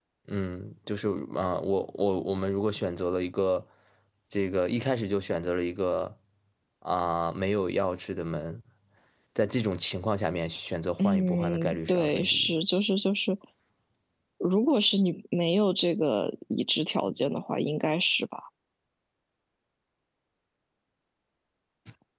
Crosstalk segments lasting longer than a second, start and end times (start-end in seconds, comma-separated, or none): 11.0-12.5